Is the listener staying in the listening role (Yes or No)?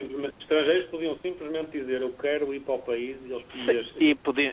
No